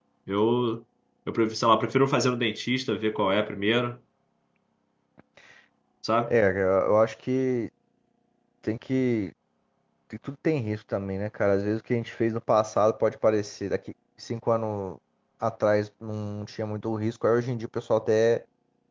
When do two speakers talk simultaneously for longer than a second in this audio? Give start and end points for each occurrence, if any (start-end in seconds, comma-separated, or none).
none